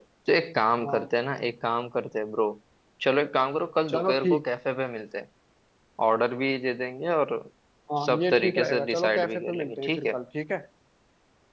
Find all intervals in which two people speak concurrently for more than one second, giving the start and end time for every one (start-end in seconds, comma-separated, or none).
8.1-10.1